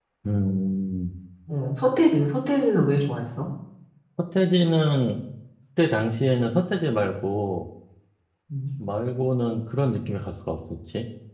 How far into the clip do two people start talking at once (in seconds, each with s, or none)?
none